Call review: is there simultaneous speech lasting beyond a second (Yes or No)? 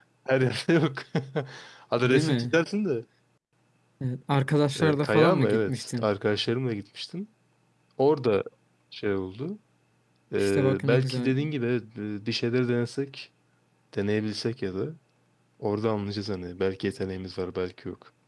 Yes